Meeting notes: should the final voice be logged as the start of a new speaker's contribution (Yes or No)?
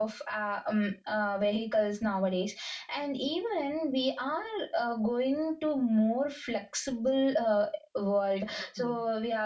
No